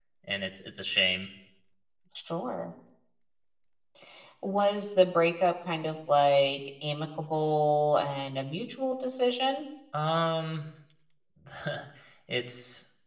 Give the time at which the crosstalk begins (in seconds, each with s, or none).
none